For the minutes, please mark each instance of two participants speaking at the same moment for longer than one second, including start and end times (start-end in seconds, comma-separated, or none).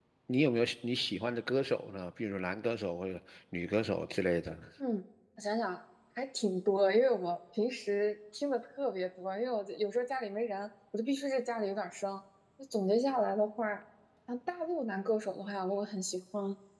none